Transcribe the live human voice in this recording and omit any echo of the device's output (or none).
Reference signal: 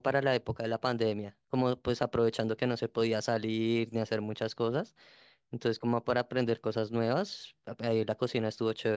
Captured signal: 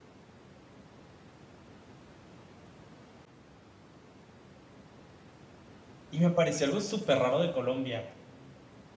Y me pareció algo súper raro de Colombia.